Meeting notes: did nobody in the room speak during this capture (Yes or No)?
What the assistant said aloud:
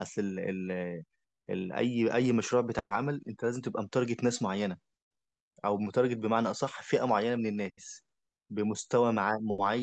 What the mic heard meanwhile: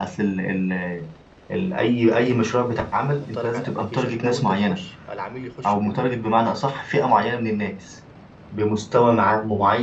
No